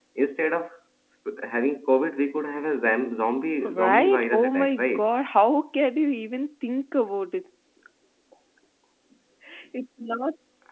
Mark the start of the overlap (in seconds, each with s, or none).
3.6 s